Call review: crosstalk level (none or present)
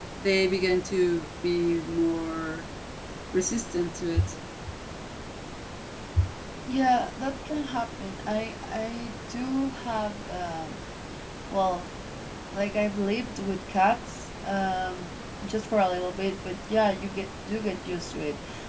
none